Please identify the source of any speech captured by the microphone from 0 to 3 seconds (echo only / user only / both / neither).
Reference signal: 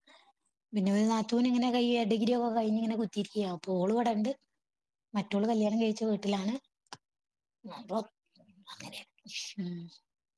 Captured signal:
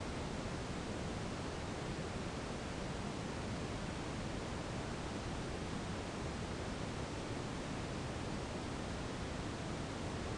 neither